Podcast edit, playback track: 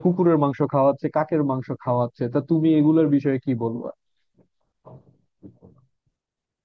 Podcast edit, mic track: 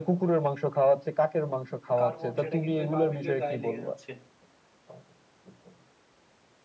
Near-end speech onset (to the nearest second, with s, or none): 2 s